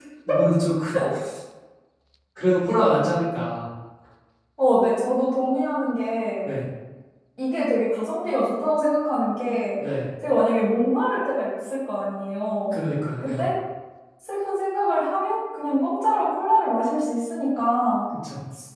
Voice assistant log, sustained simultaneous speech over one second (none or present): none